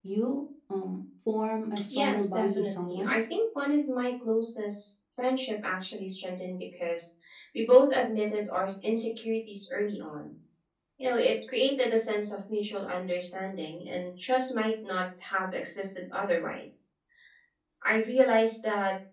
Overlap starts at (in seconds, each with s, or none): 1.9 s